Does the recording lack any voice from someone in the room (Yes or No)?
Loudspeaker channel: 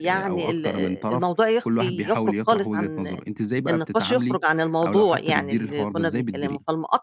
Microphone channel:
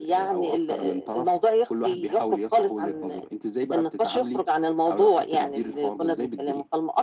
Yes